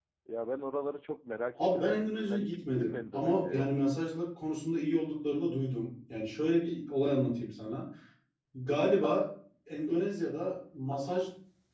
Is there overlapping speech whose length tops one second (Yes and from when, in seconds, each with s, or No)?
Yes, from 1.6 s